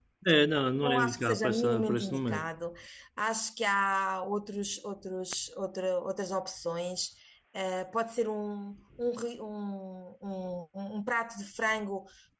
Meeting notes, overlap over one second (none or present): present